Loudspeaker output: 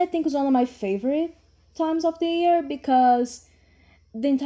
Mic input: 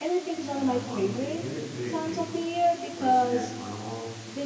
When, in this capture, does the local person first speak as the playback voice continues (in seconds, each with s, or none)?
0.3 s